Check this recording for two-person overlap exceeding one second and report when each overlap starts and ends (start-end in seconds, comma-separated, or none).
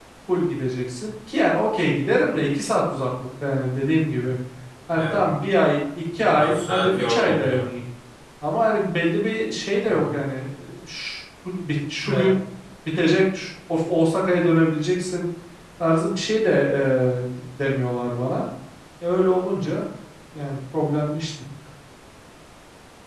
6.2-7.7